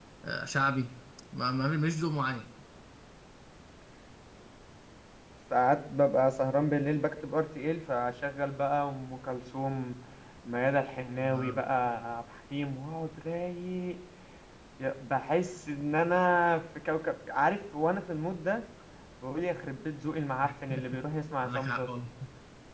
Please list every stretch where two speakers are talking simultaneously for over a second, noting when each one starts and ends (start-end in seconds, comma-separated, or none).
none